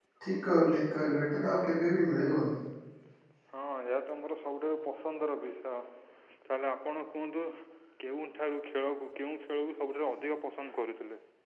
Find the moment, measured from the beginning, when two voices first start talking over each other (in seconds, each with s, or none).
none